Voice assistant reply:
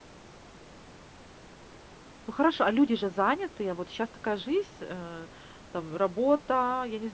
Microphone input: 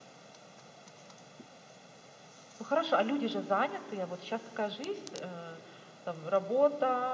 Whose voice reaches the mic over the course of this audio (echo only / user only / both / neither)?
echo only